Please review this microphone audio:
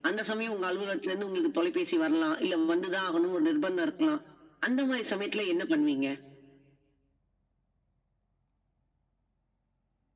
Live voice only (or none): none